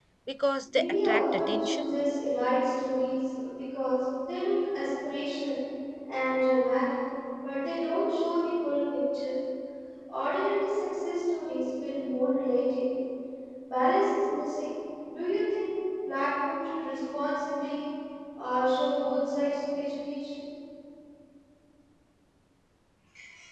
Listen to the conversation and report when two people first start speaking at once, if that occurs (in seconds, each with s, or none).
0.7 s